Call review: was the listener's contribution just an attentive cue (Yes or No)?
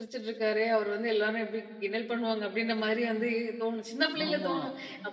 Yes